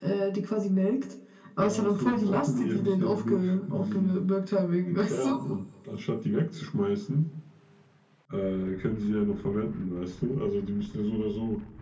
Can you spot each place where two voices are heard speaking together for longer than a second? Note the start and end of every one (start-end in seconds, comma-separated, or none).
1.6-4.2